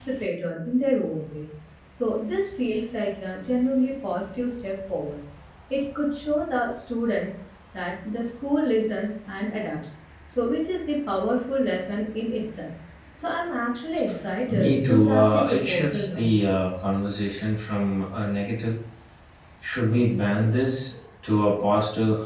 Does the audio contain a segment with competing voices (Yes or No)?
Yes